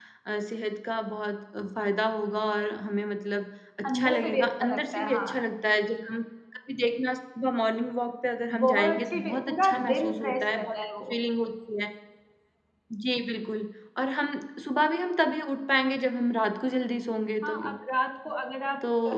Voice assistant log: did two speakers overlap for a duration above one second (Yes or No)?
Yes